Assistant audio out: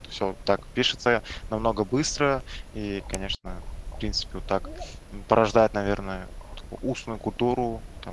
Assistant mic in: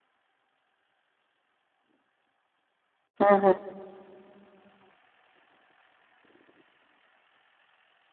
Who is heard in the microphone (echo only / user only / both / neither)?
user only